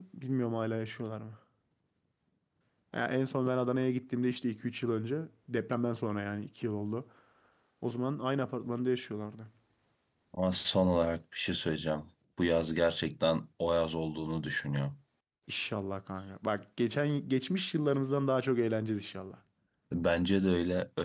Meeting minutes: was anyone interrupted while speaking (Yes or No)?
No